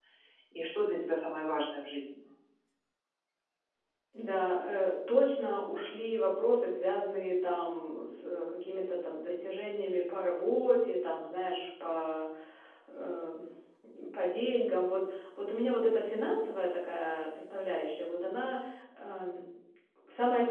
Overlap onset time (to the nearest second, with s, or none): none